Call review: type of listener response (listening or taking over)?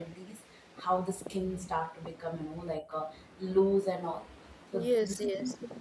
listening